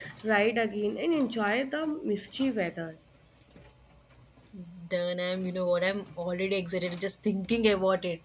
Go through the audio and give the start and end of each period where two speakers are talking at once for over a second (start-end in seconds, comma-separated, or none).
none